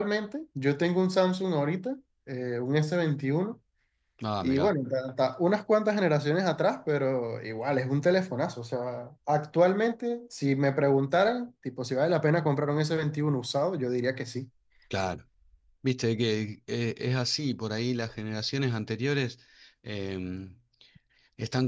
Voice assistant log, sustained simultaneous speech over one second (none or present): none